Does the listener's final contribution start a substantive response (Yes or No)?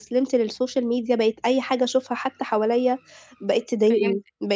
No